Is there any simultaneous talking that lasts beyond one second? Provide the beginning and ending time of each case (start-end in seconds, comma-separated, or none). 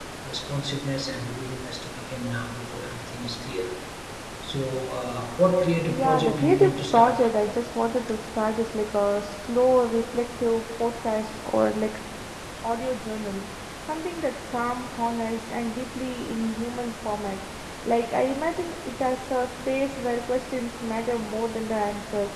5.8-7.3